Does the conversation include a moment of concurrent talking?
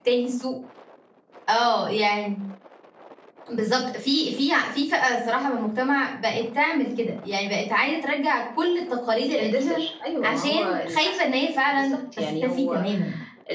Yes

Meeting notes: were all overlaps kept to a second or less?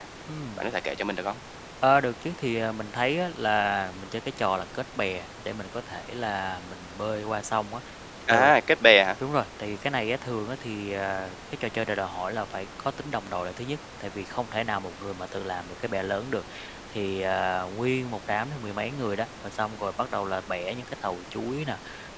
Yes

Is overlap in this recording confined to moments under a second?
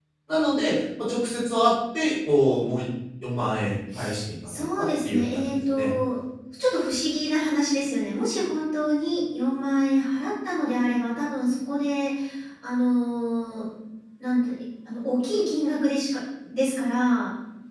No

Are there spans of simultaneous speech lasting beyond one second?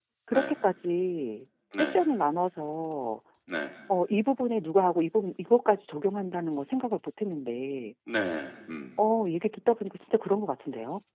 No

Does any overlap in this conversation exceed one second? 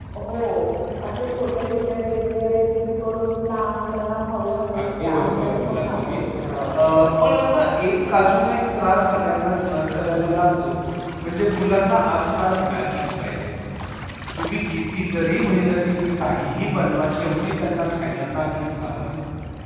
Yes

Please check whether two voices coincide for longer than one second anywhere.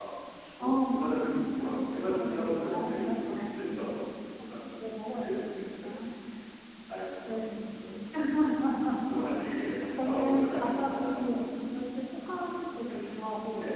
Yes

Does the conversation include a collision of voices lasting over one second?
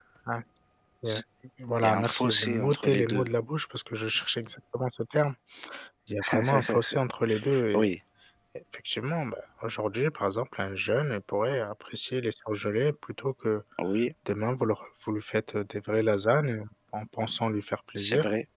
Yes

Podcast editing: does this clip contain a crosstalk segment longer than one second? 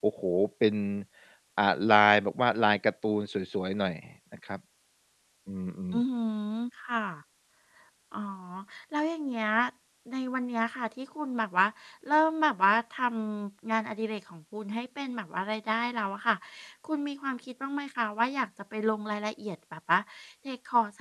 No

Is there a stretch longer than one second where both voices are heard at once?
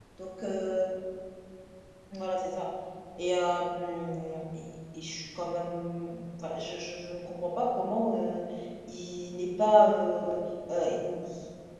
No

